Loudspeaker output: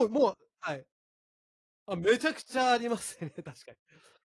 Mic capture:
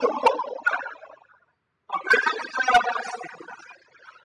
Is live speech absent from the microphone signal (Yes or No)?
Yes